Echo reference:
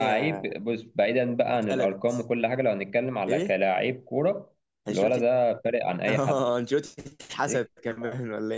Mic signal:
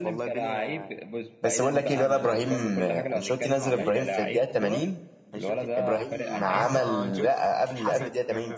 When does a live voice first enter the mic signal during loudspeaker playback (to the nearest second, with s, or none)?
1 s